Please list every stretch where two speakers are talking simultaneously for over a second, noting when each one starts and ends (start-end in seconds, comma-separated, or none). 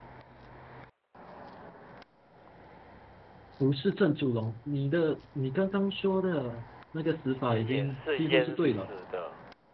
7.5-8.9